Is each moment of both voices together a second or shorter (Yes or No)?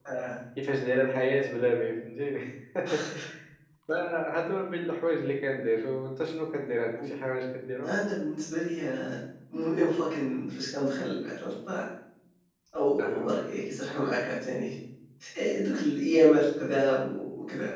Yes